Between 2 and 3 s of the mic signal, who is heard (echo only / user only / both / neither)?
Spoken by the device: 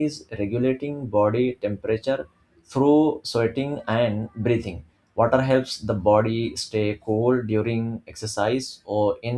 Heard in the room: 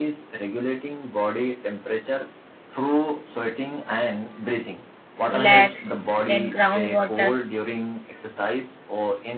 echo only